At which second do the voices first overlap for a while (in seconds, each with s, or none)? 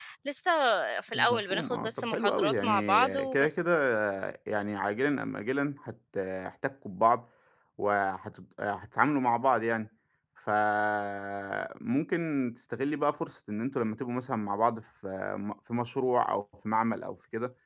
1.1 s